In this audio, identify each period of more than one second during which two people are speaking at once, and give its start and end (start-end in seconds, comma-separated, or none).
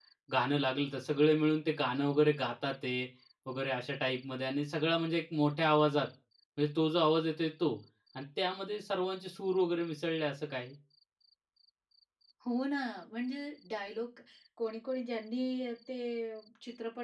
none